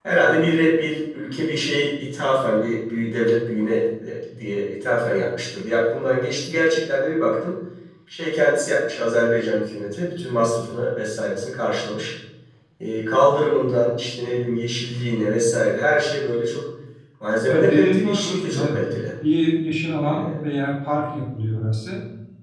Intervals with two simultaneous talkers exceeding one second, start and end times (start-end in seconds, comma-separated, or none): 17.5-18.8